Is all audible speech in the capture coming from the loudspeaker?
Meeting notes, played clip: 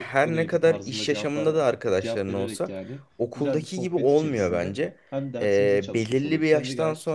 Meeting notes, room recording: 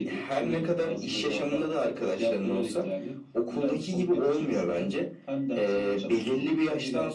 Yes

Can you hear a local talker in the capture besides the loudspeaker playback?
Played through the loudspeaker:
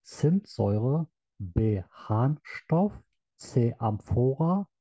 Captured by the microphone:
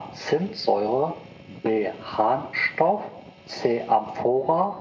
No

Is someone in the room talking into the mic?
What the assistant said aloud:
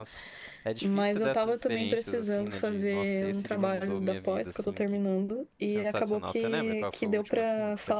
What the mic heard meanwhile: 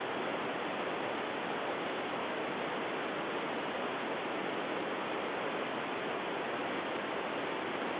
No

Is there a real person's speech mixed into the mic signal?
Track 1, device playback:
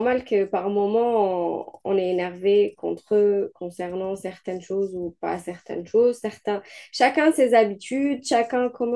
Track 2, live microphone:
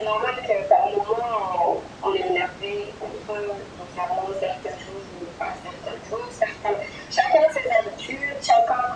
No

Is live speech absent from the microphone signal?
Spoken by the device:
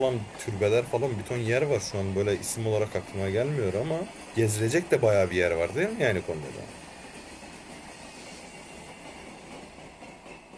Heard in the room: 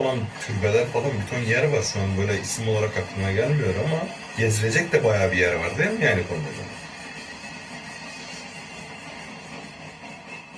Yes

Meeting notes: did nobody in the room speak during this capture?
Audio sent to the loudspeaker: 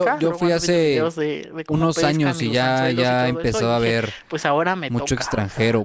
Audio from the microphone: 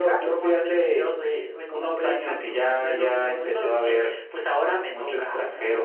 Yes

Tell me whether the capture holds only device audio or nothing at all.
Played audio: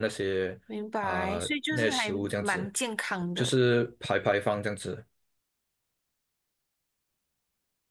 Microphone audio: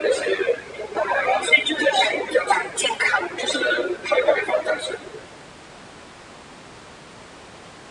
Yes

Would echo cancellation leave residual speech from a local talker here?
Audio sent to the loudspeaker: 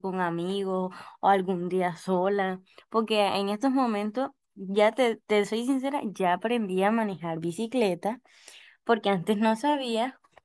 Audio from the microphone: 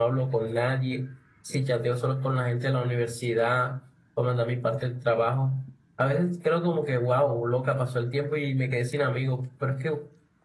Yes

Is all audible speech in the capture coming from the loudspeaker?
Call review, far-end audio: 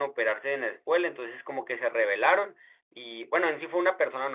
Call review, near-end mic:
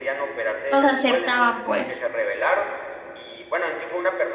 No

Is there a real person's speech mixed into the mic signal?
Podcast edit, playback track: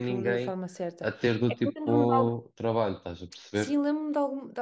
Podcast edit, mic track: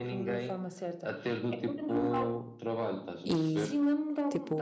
Yes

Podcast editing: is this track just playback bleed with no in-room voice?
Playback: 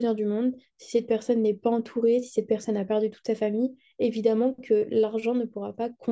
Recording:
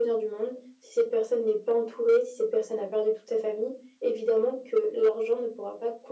Yes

